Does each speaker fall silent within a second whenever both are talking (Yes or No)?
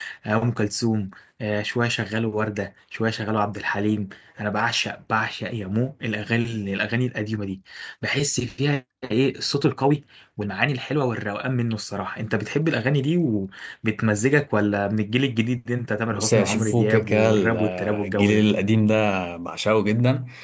No